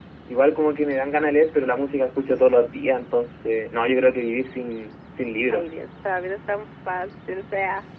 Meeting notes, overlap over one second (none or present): none